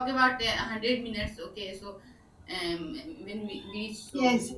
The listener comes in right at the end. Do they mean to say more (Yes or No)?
Yes